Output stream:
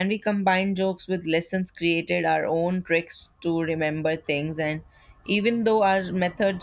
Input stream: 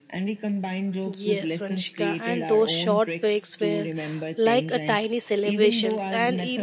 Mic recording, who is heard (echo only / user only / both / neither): both